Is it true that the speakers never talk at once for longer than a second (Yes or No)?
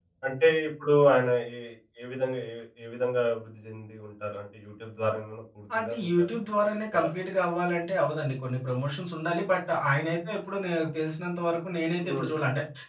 Yes